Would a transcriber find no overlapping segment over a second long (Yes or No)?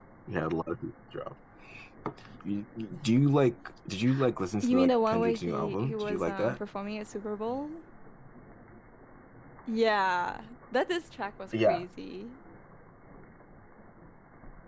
No